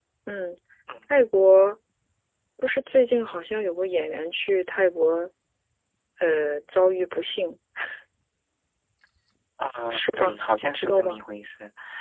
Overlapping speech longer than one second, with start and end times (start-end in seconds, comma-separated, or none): 9.9-11.2